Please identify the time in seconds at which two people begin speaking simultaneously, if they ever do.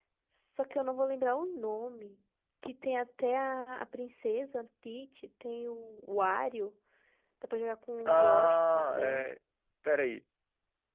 8.1 s

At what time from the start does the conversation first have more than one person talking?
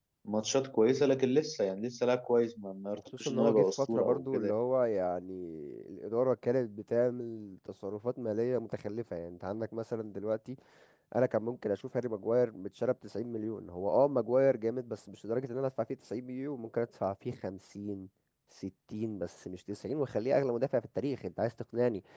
3.2 s

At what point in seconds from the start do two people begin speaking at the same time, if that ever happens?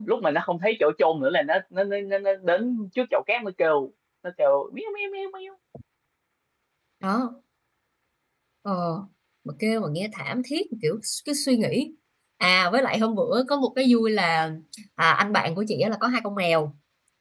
none

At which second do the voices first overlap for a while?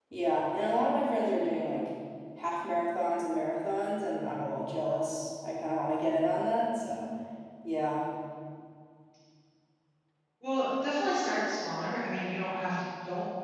none

